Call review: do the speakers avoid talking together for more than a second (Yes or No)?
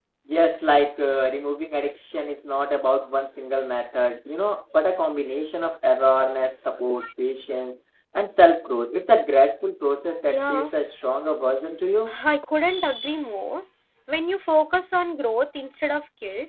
Yes